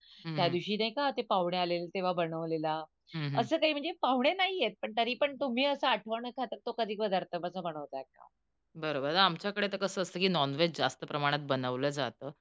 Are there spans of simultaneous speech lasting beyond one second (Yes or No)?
No